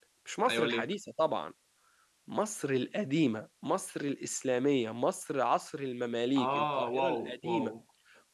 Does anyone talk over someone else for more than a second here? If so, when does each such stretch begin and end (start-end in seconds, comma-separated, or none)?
6.4-7.7